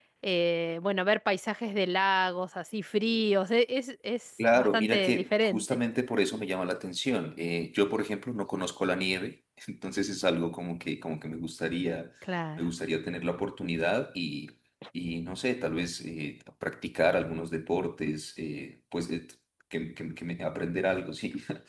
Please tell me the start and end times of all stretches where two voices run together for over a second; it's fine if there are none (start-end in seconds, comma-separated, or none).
4.5-5.8